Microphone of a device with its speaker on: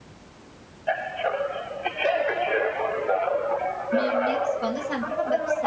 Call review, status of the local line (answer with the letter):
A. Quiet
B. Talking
B